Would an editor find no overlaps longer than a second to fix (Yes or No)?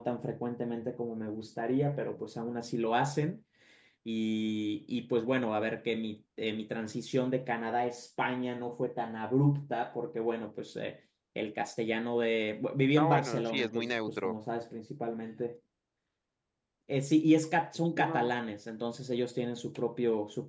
No